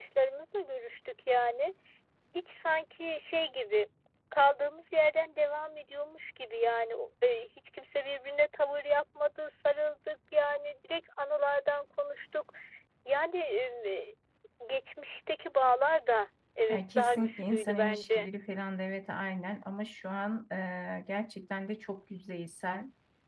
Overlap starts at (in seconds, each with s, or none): 16.7 s